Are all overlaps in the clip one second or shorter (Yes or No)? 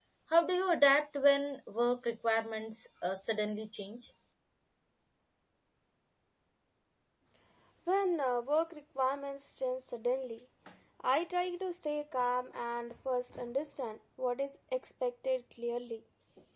Yes